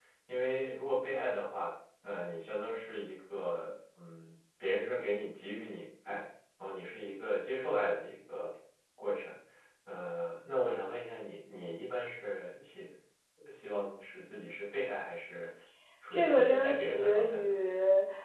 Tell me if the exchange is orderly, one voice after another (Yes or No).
No